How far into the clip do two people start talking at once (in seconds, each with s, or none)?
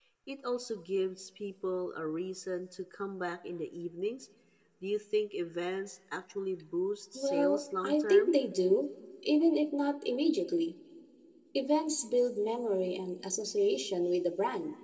7.2 s